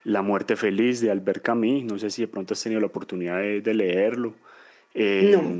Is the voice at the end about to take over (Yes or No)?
No